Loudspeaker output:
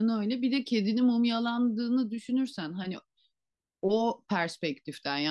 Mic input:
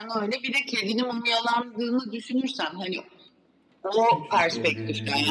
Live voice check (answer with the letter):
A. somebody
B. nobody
A